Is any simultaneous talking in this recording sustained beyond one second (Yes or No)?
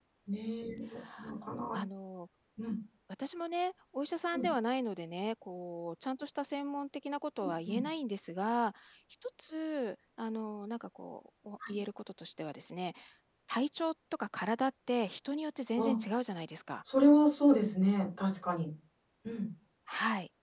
No